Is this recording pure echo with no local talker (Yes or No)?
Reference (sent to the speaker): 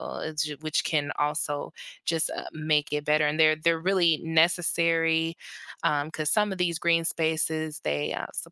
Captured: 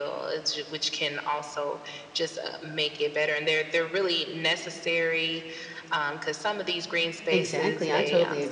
No